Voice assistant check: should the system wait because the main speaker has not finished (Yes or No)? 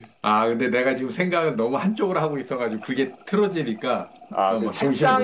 No